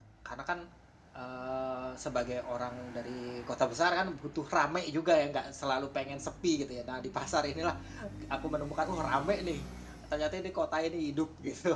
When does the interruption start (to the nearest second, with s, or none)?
none